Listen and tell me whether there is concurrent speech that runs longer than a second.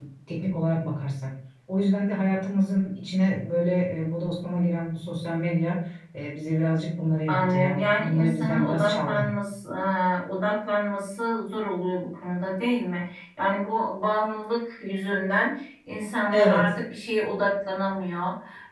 Yes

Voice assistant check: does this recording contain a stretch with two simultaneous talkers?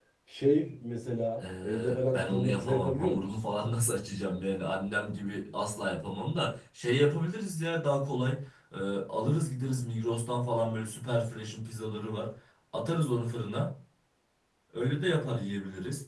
Yes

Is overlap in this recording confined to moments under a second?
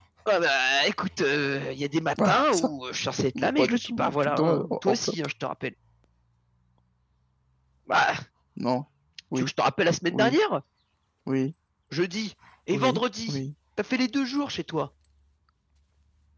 No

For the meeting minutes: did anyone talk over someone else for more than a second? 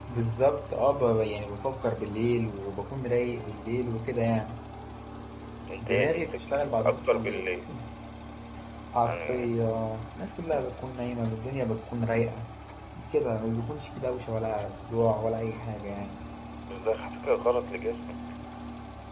Yes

